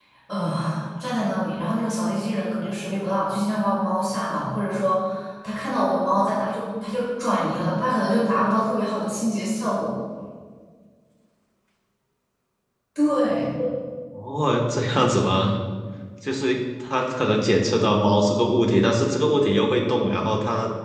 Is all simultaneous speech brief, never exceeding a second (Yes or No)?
Yes